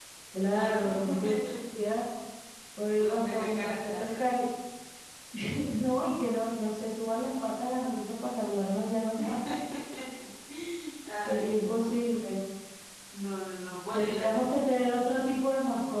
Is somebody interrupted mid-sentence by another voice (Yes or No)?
Yes